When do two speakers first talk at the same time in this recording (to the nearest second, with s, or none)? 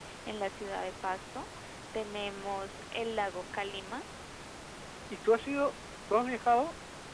none